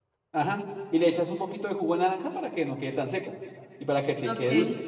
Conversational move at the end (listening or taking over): taking over